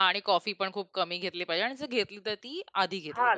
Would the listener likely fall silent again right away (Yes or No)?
No